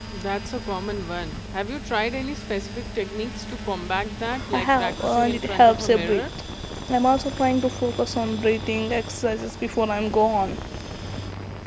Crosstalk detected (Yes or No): Yes